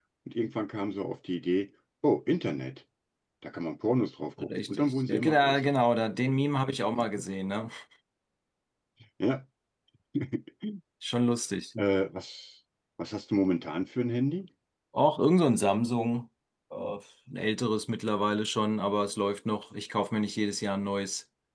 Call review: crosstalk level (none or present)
present